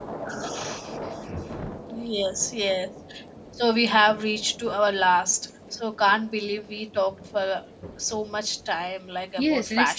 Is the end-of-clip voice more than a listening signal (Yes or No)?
Yes